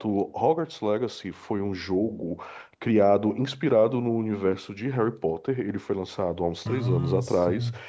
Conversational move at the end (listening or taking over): listening